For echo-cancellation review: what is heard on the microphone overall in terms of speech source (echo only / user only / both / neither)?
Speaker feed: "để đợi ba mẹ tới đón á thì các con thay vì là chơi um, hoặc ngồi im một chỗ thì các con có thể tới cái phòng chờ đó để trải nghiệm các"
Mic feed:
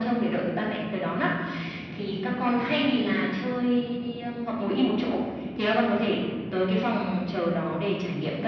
echo only